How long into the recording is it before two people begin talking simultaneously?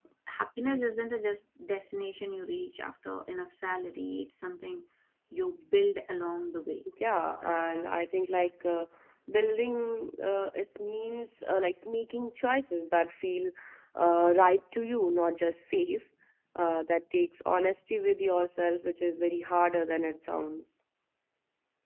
none

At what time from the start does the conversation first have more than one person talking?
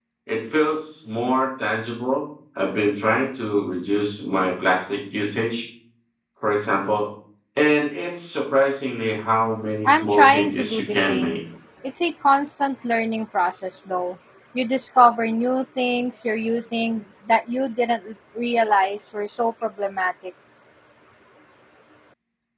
9.8 s

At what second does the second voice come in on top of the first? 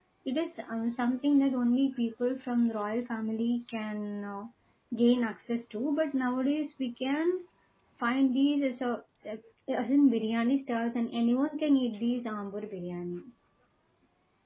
none

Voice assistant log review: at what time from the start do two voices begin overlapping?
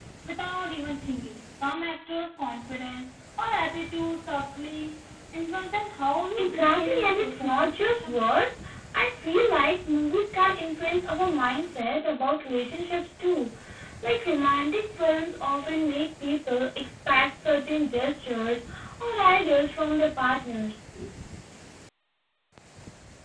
6.4 s

